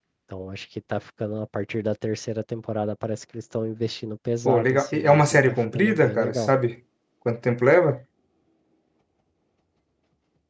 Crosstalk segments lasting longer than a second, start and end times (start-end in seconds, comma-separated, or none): 4.5-6.5